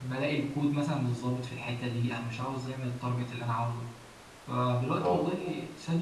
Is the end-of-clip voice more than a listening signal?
No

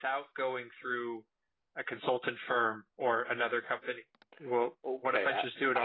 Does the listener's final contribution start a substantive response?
Yes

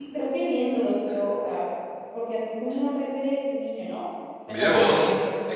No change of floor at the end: No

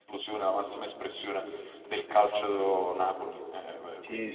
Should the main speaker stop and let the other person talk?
Yes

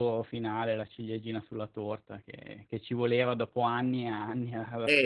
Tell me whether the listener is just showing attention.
No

